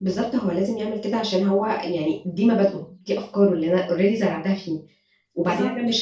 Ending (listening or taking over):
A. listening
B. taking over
A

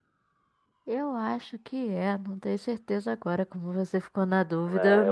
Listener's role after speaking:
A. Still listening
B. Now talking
B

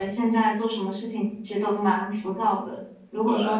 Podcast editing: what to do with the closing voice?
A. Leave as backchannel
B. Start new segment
A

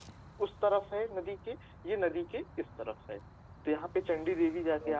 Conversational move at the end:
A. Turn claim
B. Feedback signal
B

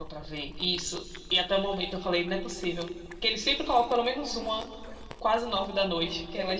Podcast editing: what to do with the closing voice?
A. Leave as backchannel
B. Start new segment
B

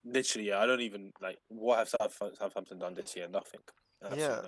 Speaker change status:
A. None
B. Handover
B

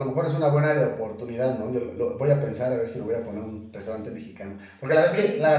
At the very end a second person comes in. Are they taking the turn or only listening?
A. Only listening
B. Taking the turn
A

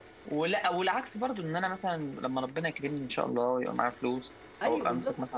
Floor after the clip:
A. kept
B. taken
A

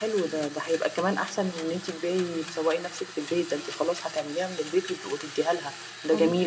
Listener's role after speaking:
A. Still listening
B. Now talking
A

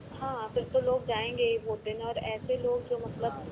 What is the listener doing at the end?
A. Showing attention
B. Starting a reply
A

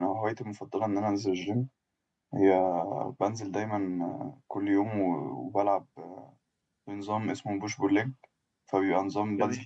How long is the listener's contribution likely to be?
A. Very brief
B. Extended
A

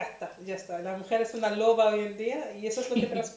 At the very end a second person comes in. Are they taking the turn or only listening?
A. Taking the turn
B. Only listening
B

